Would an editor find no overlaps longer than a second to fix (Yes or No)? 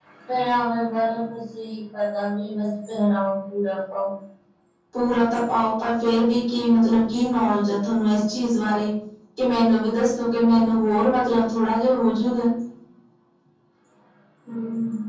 Yes